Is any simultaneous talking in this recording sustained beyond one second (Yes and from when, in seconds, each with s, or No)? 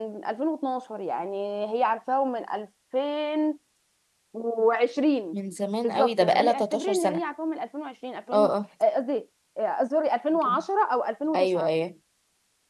Yes, from 5.8 s